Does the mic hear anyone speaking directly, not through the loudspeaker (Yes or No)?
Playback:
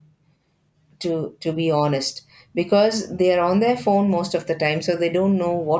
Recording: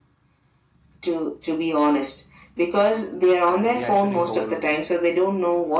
Yes